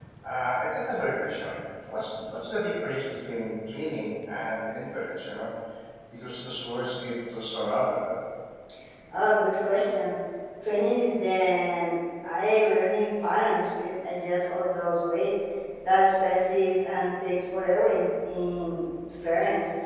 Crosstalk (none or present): none